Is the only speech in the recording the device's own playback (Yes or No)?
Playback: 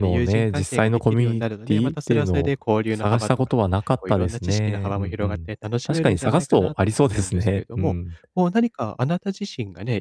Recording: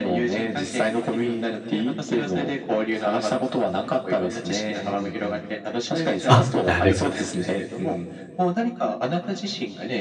No